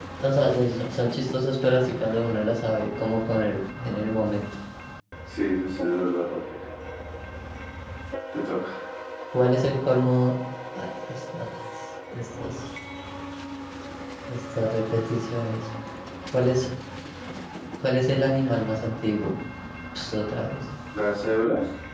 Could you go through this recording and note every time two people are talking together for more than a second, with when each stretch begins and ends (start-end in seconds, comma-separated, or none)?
none